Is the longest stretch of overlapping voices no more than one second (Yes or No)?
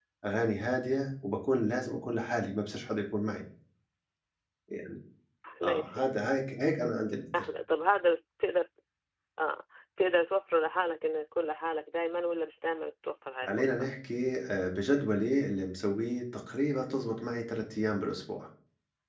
Yes